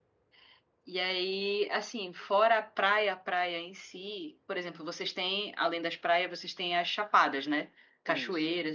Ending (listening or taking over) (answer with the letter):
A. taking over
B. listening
B